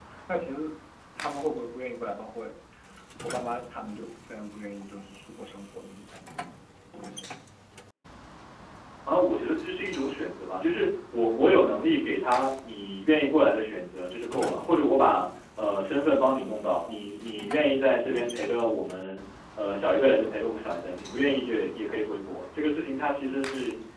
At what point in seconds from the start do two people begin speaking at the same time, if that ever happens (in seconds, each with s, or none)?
none